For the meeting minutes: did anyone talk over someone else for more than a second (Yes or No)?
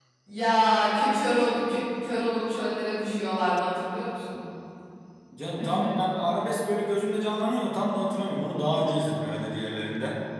No